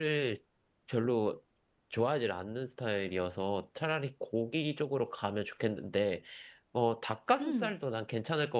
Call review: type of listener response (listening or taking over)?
listening